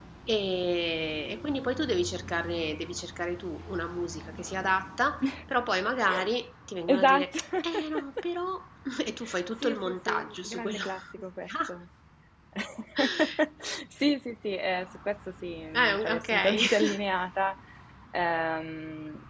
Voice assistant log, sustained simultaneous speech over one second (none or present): present